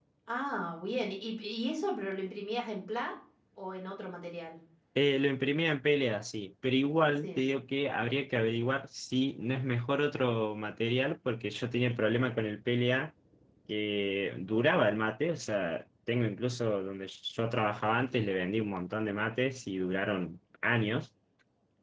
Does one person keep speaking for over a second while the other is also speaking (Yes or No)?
No